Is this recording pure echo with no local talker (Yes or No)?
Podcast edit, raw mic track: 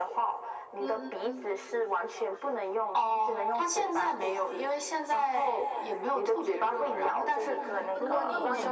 No